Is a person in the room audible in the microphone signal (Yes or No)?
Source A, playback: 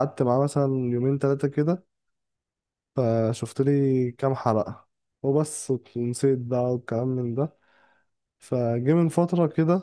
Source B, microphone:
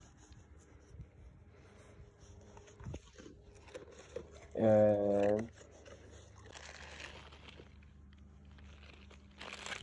Yes